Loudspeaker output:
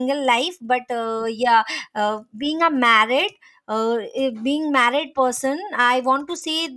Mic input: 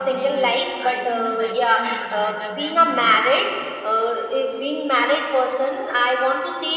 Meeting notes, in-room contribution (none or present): present